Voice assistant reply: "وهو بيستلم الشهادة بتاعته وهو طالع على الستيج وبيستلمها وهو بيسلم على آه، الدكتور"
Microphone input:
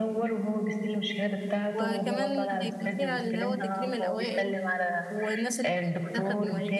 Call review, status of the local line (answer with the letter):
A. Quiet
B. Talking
B